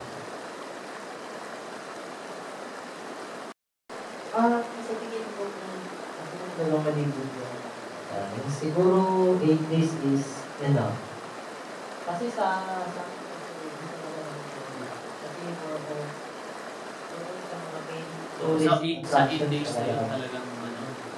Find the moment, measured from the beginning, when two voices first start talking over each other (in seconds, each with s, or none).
18.4 s